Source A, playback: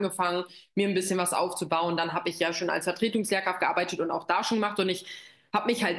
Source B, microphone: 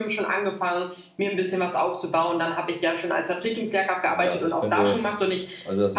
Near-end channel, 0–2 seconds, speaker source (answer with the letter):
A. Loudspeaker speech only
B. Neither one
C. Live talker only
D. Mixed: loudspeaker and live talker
A